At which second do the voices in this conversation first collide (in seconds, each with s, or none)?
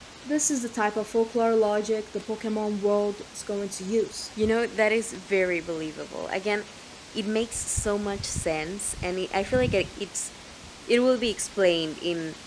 none